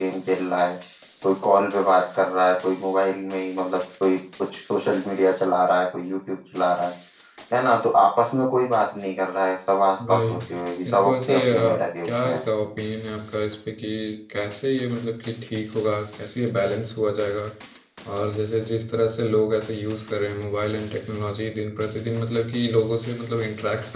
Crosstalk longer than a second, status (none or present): present